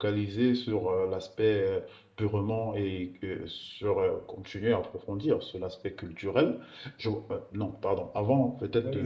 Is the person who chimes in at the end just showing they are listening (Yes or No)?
No